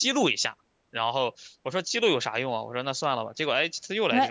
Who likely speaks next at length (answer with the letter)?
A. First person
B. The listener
B